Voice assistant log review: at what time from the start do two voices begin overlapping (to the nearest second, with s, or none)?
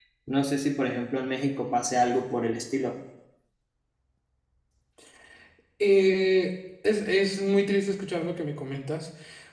none